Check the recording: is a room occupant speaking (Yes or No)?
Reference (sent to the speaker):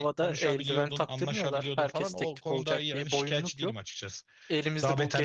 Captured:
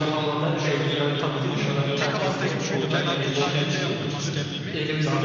Yes